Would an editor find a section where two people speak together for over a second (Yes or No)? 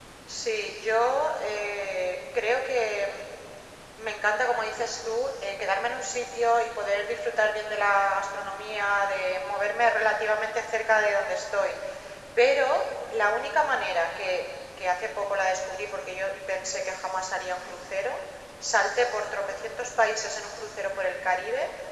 No